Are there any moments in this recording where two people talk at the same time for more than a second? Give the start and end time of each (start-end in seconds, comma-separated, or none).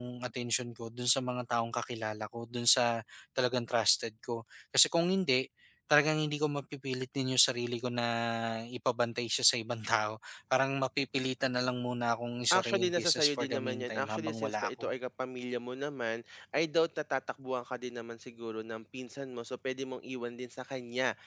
12.5-14.9